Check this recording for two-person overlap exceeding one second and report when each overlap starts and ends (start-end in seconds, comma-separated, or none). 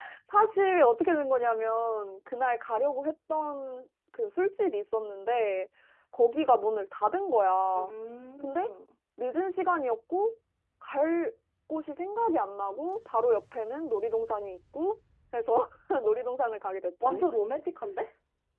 none